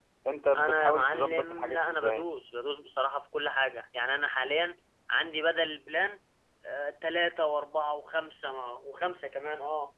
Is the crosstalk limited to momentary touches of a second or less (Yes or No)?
No